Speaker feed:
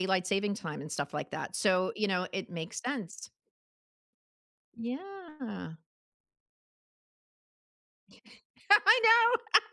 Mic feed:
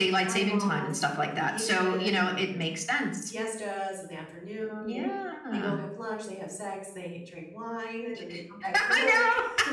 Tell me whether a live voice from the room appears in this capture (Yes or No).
Yes